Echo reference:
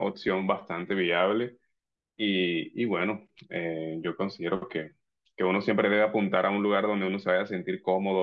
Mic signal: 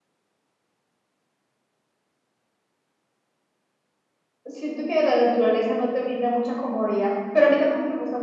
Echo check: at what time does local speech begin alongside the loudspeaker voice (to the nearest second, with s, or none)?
4 s